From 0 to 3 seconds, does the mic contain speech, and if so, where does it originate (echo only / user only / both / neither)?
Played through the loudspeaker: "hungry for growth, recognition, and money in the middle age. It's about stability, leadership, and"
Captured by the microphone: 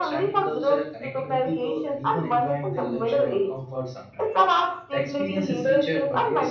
both